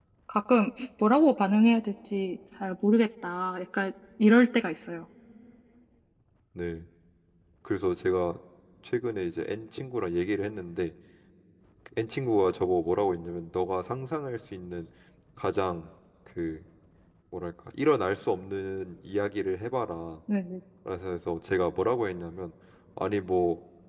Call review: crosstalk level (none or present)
none